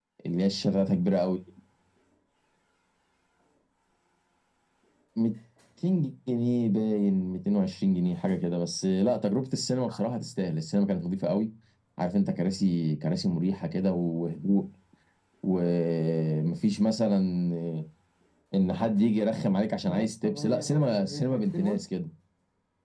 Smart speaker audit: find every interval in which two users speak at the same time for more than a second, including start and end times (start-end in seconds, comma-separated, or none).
19.8-21.8